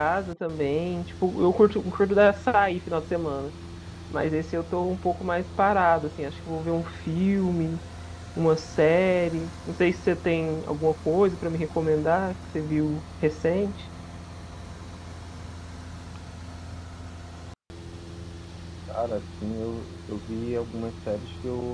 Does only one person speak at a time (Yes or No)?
Yes